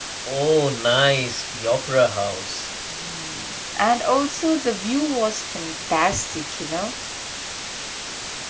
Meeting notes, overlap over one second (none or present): none